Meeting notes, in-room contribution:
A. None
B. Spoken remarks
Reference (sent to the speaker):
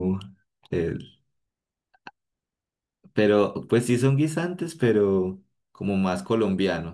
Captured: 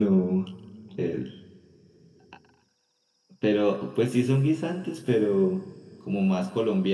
A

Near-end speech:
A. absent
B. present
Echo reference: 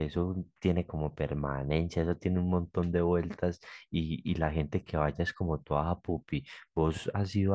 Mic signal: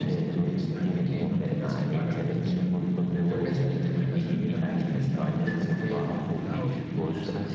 B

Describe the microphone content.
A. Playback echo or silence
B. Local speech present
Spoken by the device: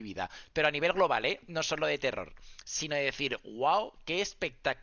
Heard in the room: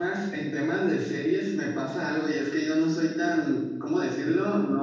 B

